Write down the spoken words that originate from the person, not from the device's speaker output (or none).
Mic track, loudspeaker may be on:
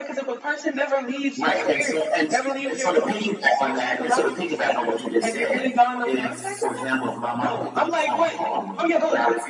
none